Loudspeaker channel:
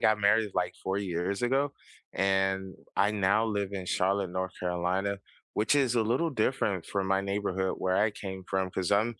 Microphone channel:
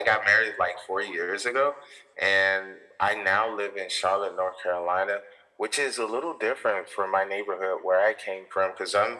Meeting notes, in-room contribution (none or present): none